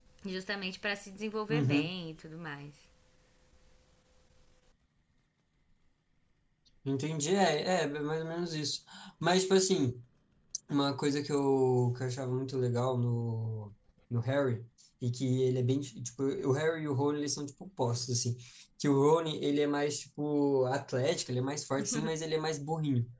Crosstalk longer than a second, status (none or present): none